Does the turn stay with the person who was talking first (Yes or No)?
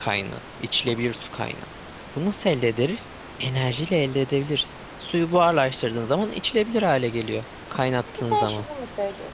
No